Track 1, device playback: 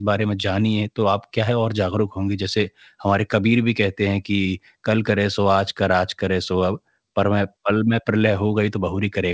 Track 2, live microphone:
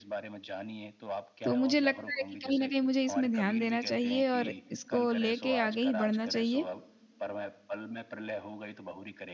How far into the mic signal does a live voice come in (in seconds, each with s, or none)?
1.4 s